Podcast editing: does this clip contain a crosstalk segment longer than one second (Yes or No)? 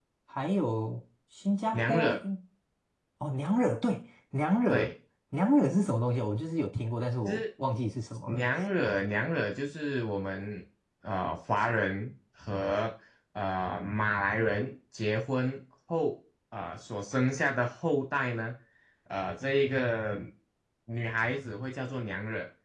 No